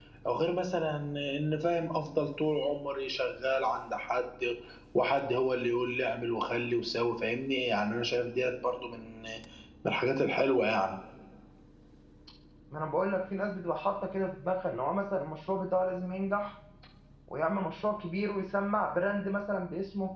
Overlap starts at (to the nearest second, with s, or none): none